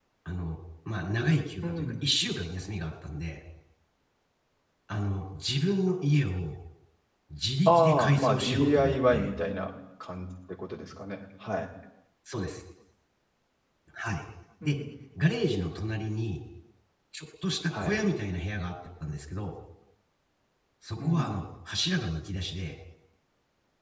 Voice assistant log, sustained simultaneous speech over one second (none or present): present